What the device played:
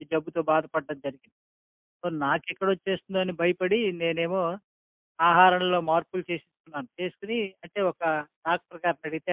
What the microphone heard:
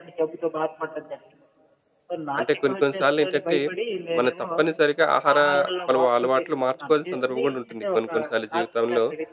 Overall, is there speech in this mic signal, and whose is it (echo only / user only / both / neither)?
both